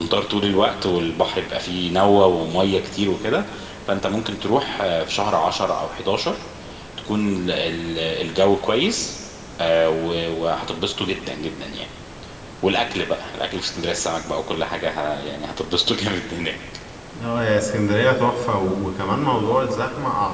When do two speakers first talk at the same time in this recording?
none

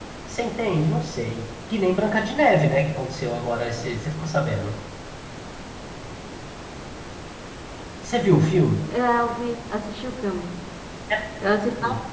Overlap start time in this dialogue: none

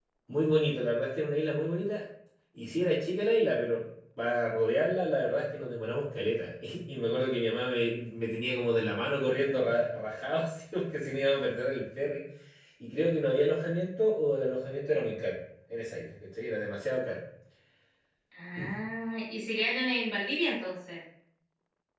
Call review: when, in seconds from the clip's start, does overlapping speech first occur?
none

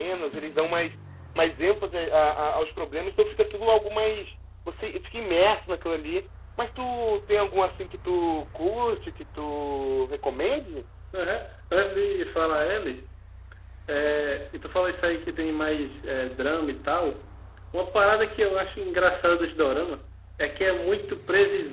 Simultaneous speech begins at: none

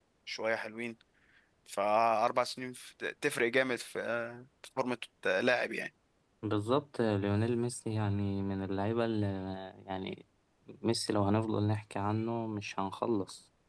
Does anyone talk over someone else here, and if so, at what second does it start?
none

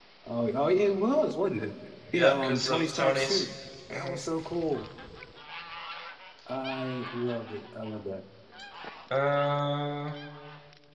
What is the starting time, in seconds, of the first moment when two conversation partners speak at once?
2.1 s

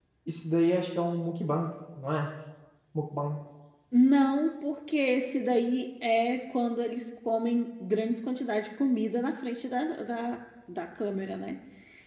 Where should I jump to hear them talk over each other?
none

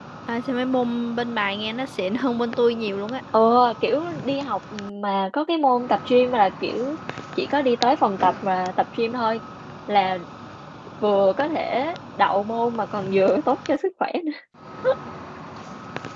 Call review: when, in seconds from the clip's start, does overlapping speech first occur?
none

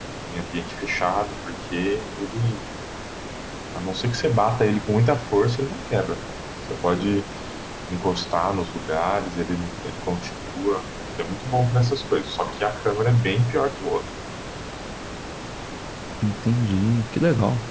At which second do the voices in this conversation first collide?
none

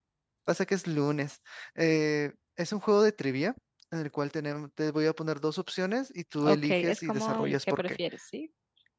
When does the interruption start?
6.3 s

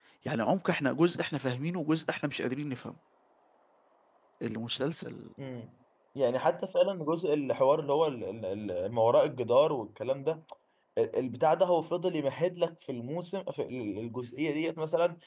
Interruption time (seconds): none

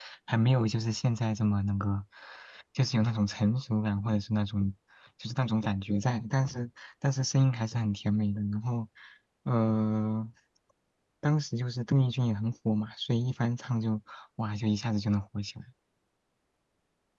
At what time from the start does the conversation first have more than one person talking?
none

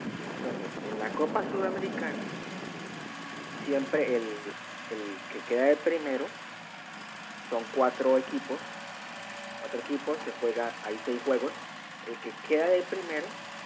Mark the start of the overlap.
none

